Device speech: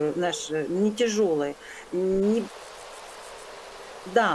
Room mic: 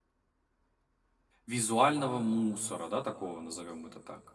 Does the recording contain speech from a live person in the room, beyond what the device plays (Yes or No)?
Yes